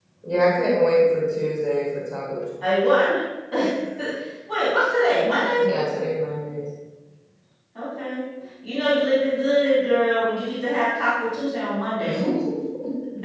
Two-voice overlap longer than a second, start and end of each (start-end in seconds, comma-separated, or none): none